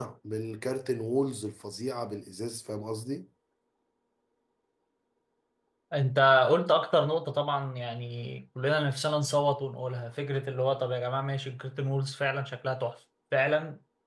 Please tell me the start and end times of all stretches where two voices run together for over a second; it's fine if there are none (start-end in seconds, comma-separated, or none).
none